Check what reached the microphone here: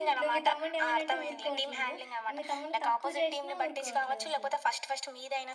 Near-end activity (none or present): present